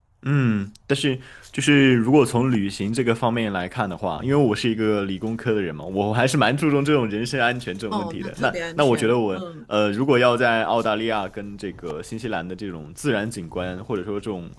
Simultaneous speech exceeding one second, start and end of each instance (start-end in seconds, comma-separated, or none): 7.9-9.4